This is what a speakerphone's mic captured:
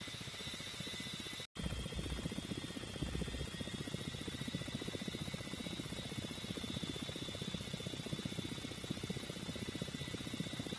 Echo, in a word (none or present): none